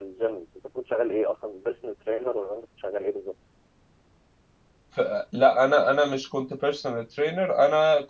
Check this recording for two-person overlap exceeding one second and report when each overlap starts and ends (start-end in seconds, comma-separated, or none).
none